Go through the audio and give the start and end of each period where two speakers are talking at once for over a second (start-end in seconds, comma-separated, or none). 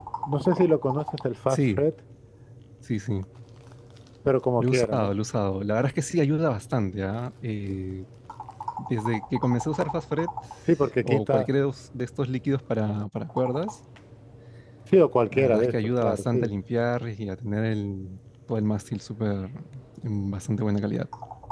15.3-16.5